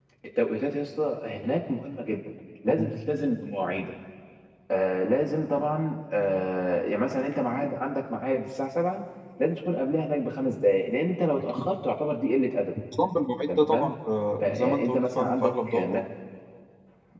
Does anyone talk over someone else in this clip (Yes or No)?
Yes